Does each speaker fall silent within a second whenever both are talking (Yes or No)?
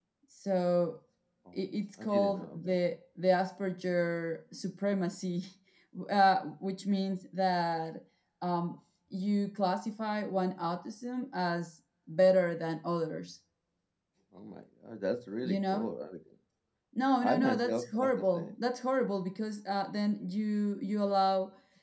No